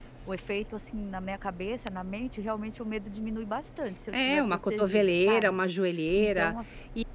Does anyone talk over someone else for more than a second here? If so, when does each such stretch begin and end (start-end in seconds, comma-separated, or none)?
4.1-5.6